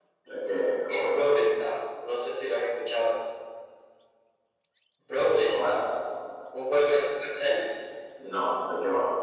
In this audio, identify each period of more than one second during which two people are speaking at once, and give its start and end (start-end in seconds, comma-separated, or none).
none